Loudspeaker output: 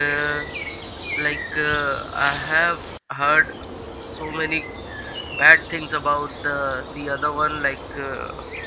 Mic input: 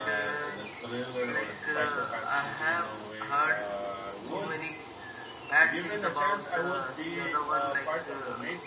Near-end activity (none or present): present